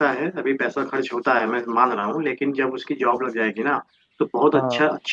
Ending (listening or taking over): listening